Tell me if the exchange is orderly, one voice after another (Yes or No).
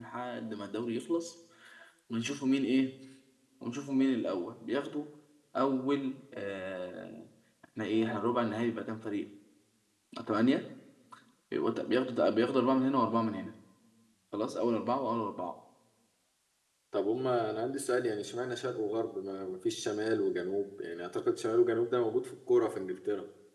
Yes